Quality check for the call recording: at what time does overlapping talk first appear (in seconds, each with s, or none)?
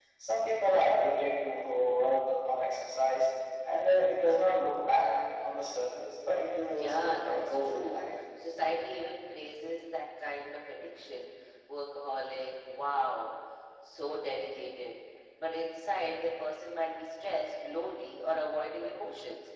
6.7 s